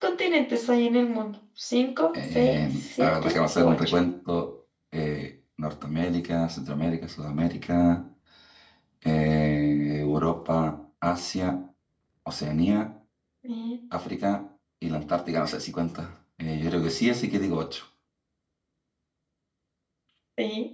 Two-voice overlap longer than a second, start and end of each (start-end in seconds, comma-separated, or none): 2.1-3.9